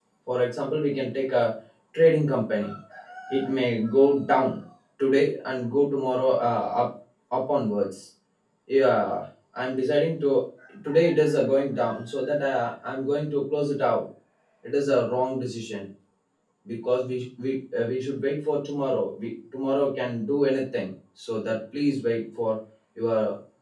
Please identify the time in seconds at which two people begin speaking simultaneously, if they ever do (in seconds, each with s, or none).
none